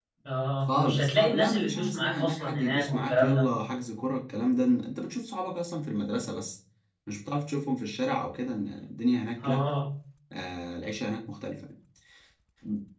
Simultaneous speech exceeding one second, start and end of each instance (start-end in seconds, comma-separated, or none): 0.7-3.4